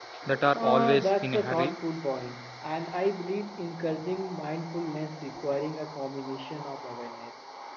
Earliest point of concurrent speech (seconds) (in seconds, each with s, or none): 0.5 s